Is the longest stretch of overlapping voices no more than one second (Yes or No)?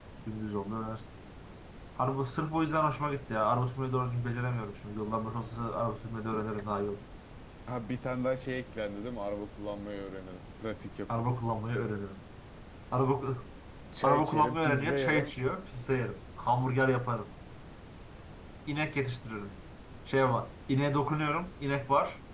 No